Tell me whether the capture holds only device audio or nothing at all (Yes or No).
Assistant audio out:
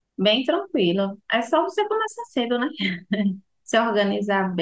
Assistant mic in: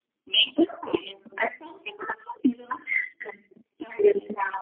Yes